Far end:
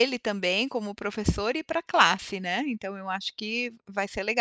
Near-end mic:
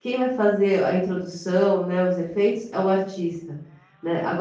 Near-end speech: present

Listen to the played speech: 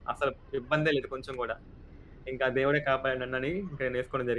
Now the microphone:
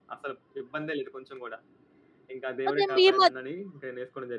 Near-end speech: present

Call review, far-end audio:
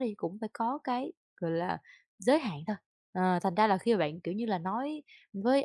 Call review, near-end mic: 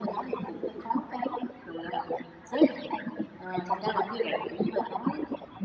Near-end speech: none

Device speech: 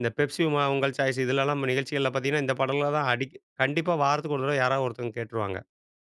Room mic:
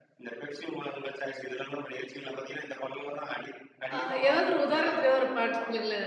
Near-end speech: present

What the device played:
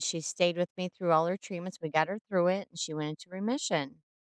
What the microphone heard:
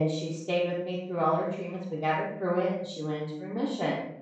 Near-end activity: none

